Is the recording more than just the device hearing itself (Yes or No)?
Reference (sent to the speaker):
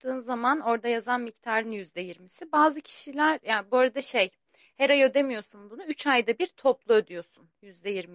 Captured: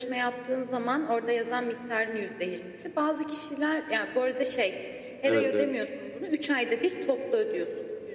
Yes